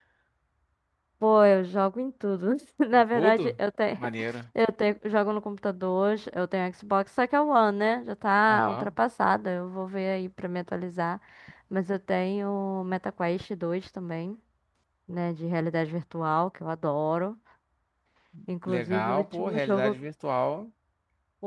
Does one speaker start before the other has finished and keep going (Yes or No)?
Yes